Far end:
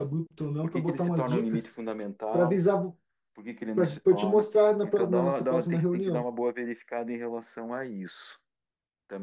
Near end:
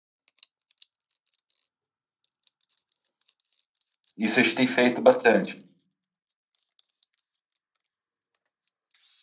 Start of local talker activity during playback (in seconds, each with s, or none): 4.2 s